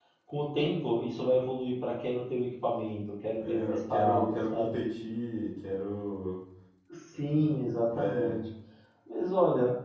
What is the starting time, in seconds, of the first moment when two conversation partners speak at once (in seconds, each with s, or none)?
3.4 s